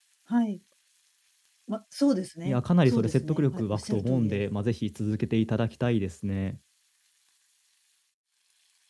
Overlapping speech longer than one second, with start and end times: 2.5-4.4

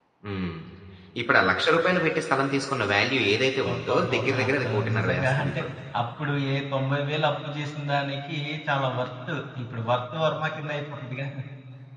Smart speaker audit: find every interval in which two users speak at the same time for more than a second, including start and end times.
3.3-5.6

